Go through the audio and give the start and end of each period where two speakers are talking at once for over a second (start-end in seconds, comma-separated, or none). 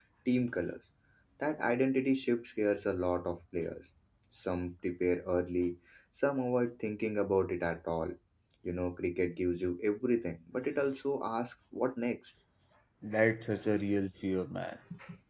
none